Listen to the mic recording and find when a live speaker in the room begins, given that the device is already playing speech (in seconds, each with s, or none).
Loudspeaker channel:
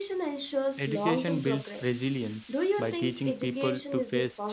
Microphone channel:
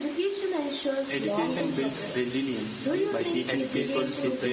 2.9 s